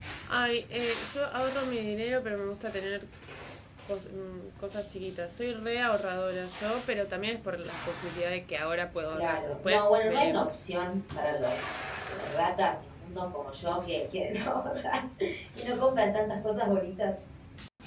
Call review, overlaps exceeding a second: present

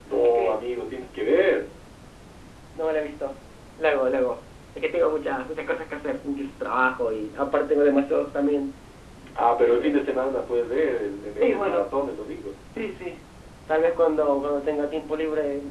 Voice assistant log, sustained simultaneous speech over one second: none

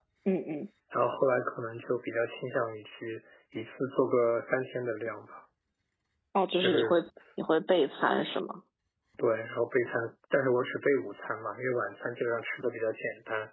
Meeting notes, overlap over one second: none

